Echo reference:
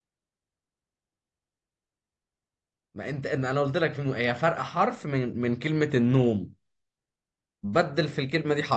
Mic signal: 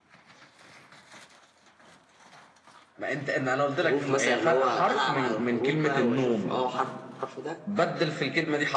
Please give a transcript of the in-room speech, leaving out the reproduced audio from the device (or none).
حروف مثلا اللي هو العب على الحروف بقى واشوف اه حرف الحرف ده